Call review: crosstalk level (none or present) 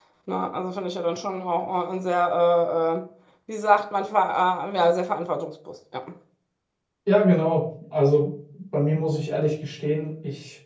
none